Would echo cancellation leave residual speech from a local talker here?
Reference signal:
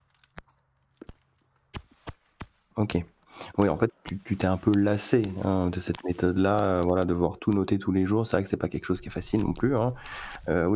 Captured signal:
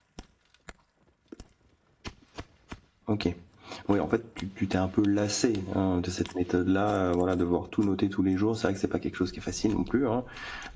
No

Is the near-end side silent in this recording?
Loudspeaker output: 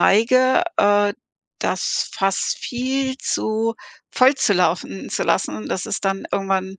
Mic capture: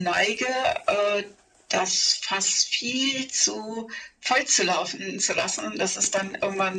Yes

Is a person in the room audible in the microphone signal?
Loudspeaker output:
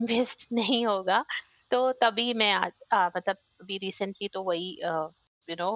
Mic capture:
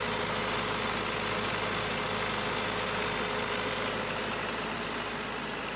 No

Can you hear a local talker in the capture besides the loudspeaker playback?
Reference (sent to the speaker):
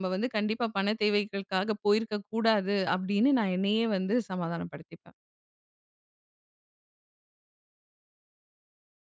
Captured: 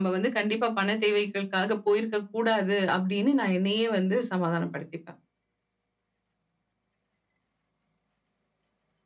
No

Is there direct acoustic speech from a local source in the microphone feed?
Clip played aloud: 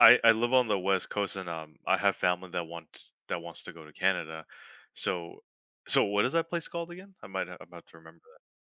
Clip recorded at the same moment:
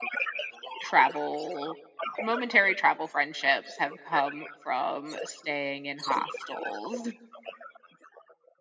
Yes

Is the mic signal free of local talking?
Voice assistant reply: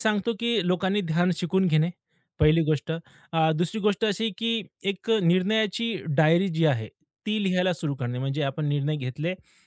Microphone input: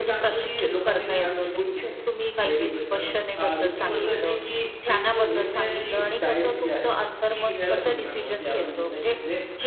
No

